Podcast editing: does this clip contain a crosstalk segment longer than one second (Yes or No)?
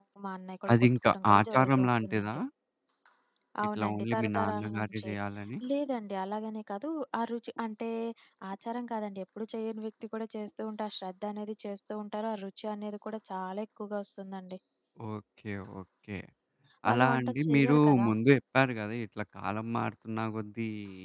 Yes